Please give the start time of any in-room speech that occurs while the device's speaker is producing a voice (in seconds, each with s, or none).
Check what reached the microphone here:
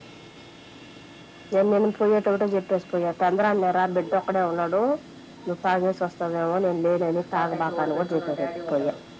7.4 s